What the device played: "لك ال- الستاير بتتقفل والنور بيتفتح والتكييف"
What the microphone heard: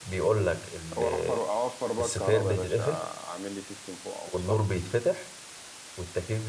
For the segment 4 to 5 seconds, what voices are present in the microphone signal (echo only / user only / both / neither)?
both